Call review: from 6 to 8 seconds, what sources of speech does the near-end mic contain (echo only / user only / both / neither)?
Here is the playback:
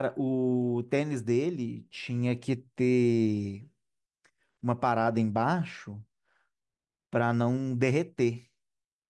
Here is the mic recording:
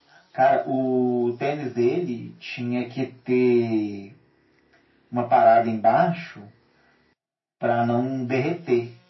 echo only